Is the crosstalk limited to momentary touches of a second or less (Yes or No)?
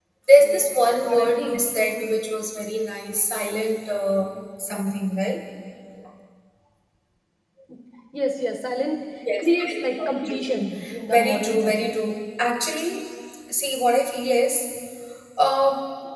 No